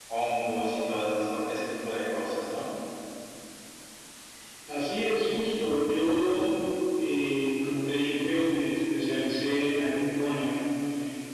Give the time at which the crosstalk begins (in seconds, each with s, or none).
none